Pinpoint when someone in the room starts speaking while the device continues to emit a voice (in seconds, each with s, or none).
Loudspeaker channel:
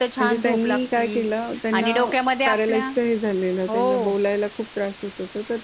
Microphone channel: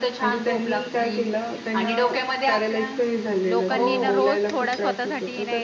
3.5 s